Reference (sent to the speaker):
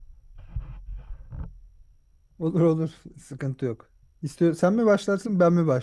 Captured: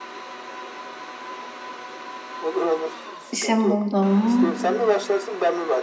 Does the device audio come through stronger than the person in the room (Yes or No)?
No